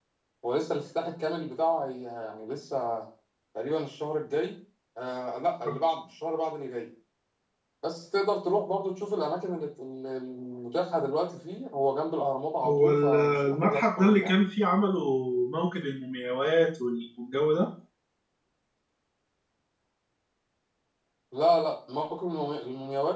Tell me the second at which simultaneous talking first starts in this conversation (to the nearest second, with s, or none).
13 s